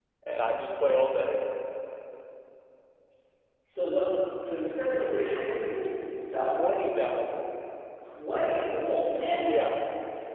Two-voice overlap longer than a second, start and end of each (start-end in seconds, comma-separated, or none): none